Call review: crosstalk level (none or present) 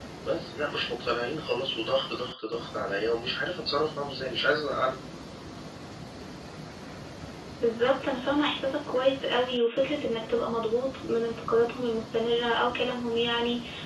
none